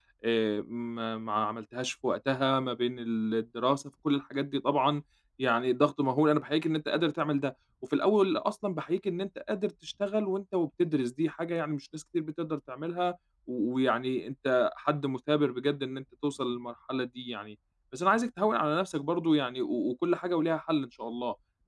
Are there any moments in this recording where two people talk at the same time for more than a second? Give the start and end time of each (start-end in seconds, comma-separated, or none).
none